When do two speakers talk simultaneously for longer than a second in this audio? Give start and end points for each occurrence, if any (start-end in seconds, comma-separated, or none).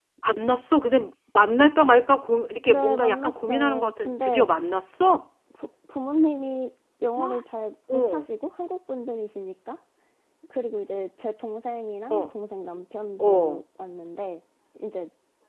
2.7-4.5